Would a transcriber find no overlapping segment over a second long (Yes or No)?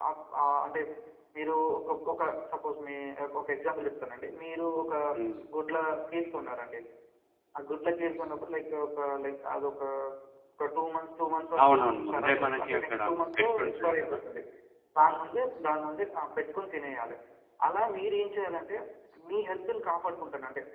No